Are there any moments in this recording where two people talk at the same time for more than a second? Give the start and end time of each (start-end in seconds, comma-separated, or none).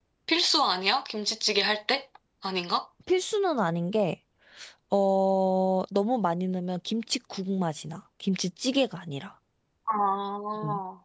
none